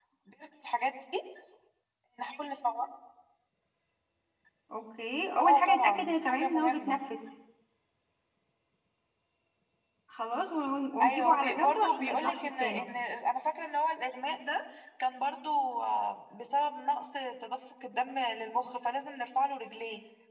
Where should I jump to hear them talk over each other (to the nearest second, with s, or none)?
5 s